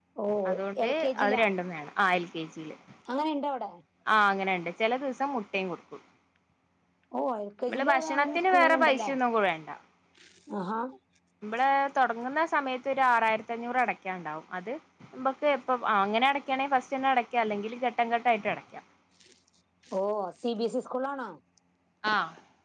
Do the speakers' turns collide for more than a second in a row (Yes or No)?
Yes